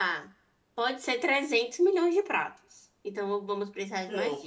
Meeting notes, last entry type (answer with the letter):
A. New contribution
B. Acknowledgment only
A